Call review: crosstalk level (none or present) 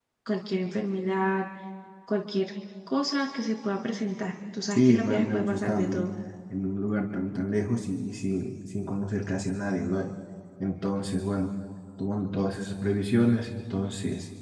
present